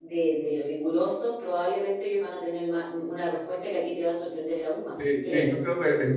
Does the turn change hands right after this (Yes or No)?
Yes